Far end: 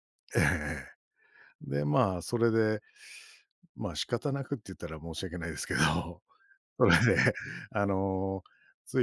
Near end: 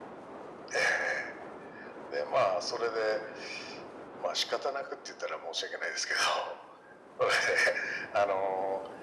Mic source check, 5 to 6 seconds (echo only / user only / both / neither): echo only